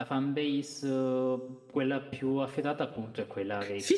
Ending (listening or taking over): taking over